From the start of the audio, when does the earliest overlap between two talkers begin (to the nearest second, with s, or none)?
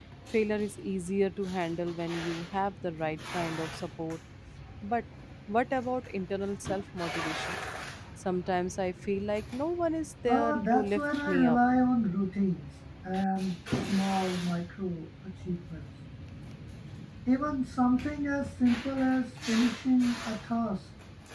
10 s